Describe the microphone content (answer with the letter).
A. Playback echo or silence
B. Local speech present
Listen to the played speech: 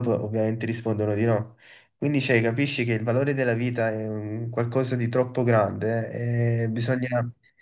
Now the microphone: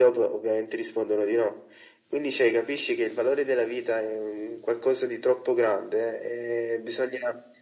A